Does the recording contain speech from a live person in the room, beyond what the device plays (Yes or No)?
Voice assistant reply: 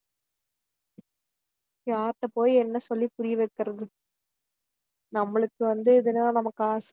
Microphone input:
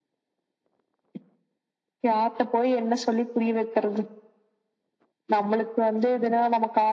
No